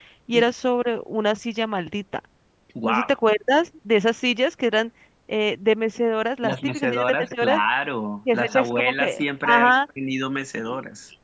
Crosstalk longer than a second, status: present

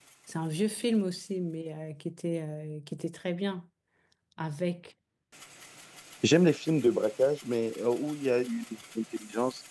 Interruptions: none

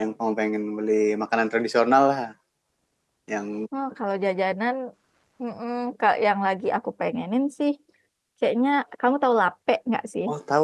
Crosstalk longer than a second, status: none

